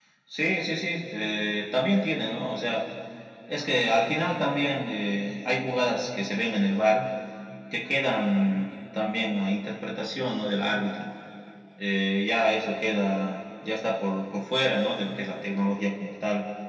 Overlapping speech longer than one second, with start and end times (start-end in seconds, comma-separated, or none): none